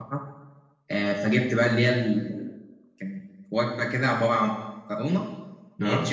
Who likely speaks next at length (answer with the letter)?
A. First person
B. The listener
A